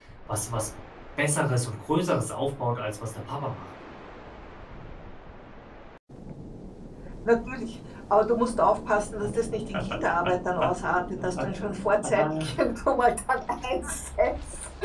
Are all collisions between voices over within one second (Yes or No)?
Yes